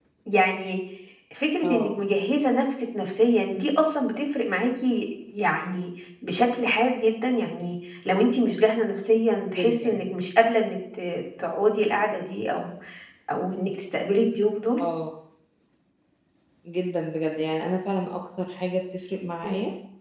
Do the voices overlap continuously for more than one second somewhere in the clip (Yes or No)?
No